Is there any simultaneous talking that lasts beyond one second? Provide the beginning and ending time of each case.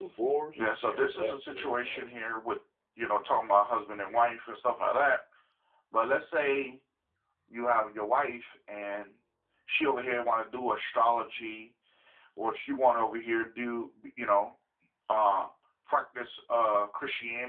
0.6-2.0

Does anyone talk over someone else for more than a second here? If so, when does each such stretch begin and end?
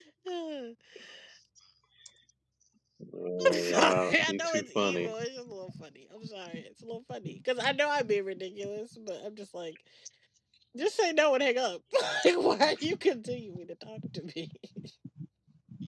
3.5-5.1

